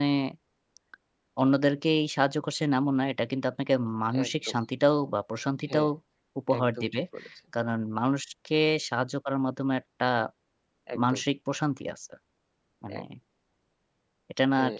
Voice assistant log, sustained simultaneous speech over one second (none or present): none